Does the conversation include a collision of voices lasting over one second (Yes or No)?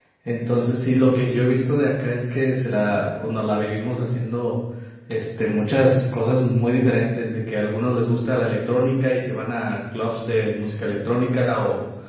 No